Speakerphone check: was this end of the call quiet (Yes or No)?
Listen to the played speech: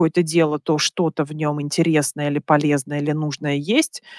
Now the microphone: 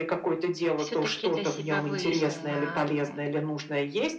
No